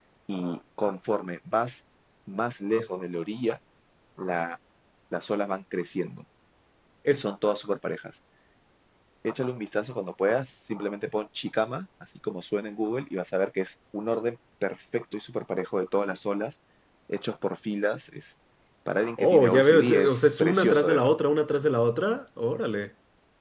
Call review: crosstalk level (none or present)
present